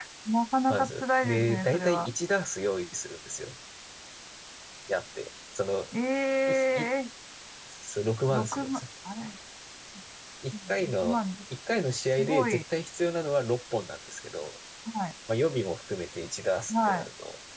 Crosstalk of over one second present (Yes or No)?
Yes